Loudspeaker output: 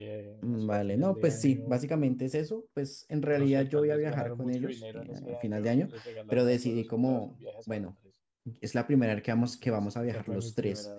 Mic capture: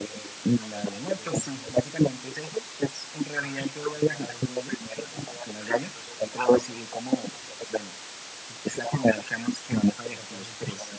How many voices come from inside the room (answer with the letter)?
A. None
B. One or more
A